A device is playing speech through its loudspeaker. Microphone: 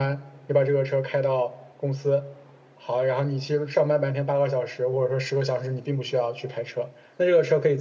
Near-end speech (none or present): none